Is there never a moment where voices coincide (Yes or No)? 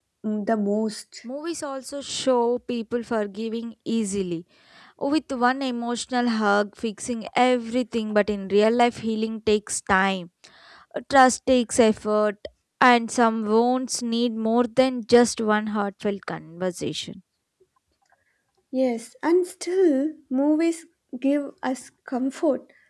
Yes